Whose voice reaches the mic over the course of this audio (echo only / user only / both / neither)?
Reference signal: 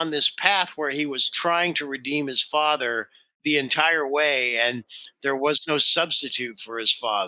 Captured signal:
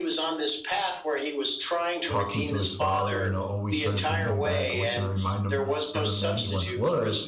both